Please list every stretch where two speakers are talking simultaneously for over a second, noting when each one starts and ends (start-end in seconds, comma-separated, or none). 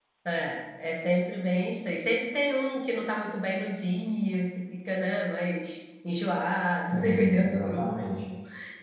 6.7-8.1